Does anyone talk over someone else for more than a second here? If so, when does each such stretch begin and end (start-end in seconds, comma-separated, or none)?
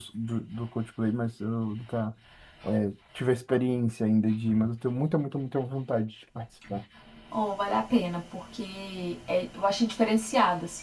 none